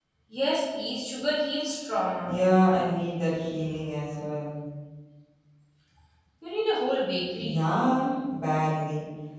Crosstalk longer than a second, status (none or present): none